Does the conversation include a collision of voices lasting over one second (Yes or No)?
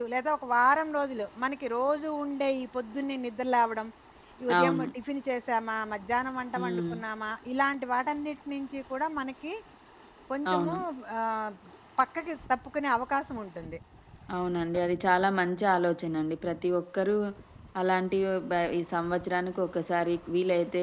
No